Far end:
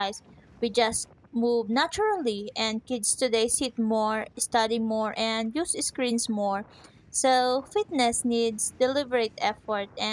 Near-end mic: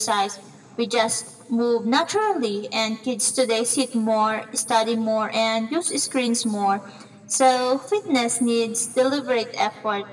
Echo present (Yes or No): Yes